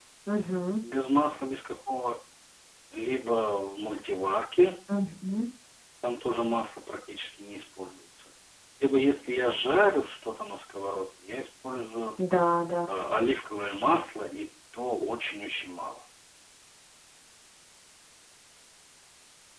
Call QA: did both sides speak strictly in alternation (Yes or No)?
Yes